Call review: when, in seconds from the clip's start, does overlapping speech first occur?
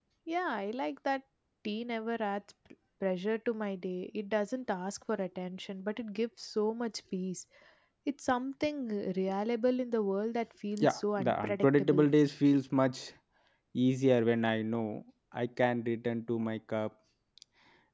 10.8 s

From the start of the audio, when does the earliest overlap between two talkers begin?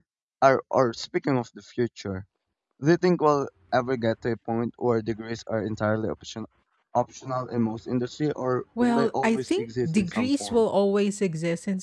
8.8 s

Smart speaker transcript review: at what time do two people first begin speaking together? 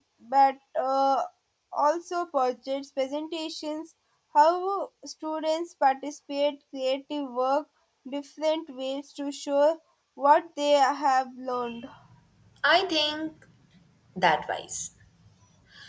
none

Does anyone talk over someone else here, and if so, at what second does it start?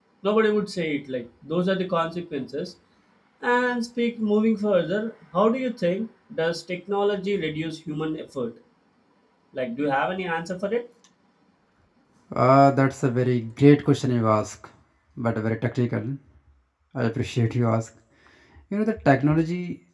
none

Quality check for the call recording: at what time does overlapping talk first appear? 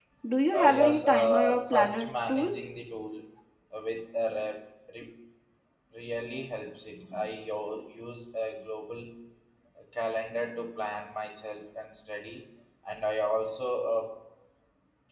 0.5 s

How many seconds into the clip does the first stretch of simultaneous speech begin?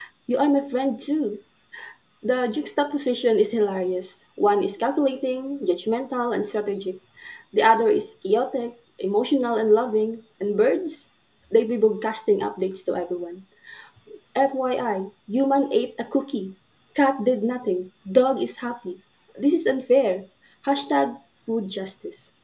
none

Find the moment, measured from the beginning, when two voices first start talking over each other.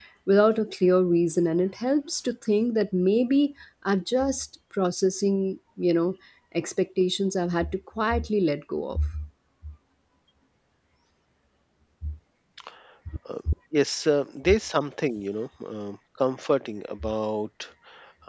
none

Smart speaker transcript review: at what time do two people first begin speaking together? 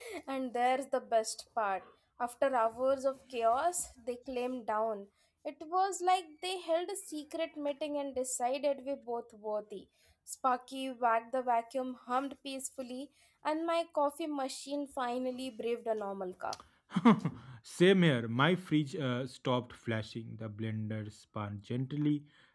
none

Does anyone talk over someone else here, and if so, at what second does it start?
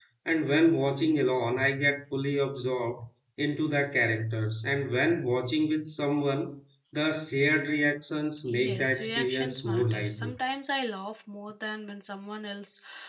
8.5 s

